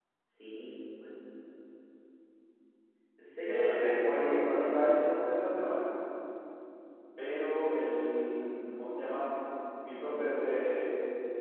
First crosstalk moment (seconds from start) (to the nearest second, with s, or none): 3 s